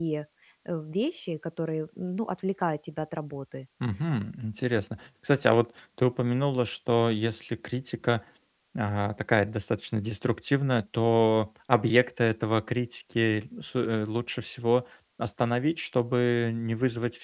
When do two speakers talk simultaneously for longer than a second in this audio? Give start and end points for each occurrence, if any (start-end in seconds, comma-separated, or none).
none